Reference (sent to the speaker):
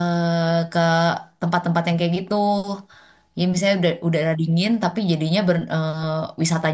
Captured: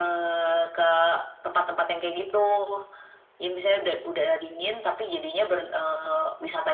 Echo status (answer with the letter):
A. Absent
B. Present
B